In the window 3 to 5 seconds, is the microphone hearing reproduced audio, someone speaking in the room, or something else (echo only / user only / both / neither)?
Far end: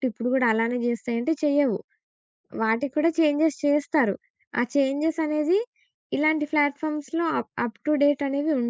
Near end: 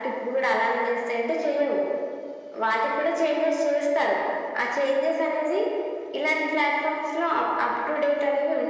echo only